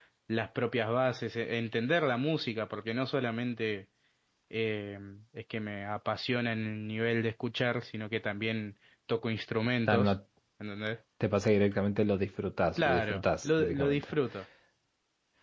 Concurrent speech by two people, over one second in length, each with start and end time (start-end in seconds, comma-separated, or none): 12.8-14.1